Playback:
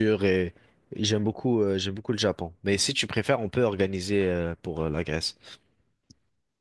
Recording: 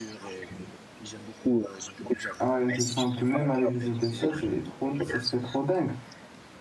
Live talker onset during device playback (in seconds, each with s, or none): 2.4 s